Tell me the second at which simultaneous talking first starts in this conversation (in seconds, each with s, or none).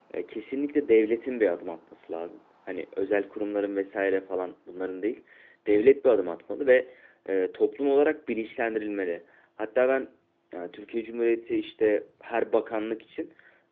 none